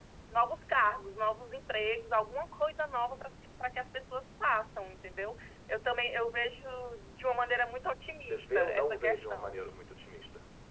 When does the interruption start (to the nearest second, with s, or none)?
8 s